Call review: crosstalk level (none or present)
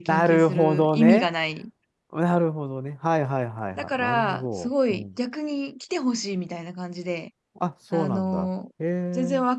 present